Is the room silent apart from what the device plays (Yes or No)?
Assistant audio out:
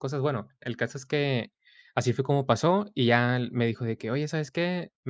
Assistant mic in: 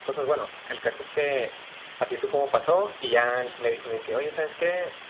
Yes